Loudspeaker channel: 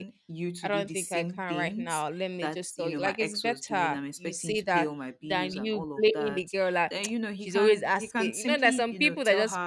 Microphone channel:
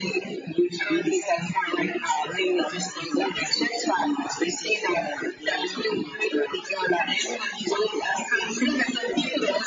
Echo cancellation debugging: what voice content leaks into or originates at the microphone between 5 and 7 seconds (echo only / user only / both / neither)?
echo only